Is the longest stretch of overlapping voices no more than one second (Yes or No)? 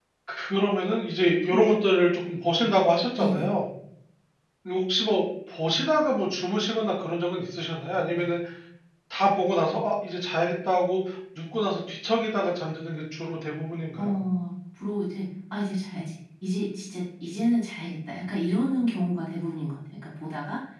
Yes